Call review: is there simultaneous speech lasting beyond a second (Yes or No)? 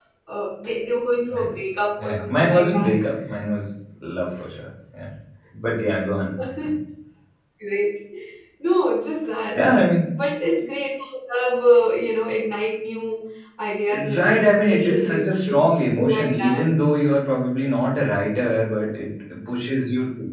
Yes